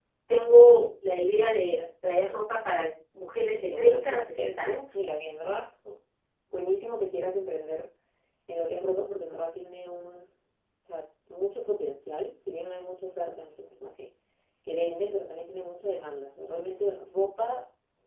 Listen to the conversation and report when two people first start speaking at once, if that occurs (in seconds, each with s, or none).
3.5 s